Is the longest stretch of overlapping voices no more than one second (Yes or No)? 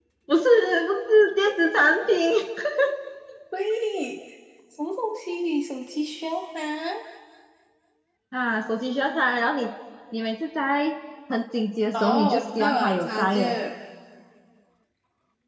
No